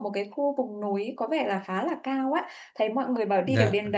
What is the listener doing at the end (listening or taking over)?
listening